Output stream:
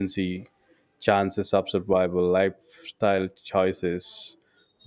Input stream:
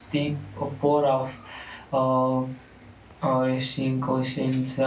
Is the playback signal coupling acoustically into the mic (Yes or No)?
No